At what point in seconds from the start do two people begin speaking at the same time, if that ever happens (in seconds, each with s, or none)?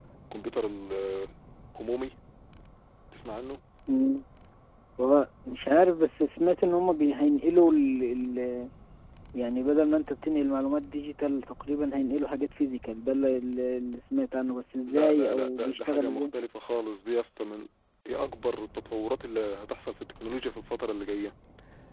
14.9 s